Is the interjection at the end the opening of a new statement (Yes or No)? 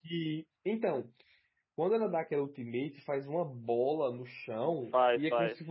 No